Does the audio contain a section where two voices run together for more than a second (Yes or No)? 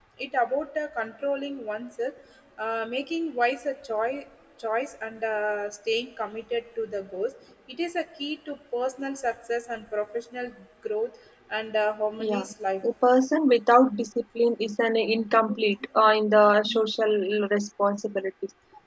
No